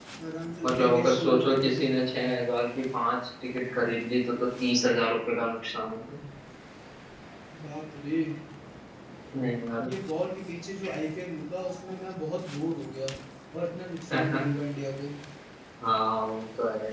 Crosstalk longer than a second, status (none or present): present